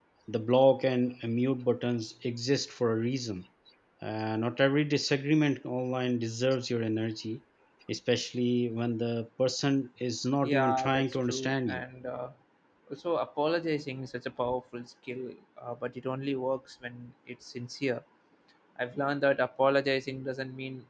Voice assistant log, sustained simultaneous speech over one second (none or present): present